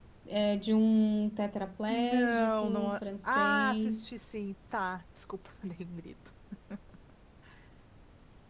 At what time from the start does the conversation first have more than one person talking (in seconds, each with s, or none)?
1.9 s